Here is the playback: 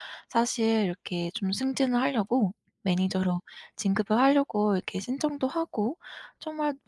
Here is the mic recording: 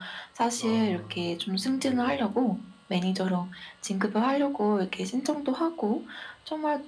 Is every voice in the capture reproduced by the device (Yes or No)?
No